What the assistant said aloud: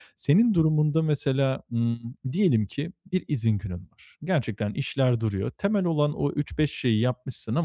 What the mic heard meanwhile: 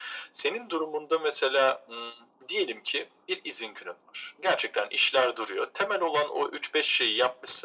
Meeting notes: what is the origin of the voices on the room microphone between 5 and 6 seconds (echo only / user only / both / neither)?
echo only